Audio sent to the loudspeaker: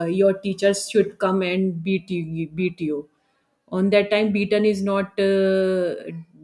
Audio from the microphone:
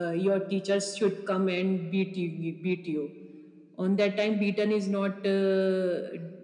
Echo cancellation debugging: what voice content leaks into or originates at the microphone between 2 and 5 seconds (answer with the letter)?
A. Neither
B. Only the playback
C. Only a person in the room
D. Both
B